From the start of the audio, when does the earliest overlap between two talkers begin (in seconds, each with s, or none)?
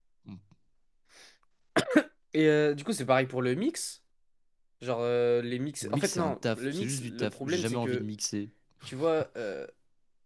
5.8 s